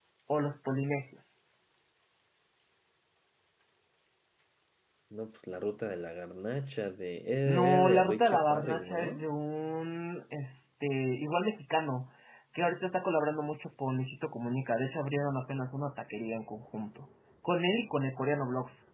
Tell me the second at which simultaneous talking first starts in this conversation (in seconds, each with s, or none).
7.5 s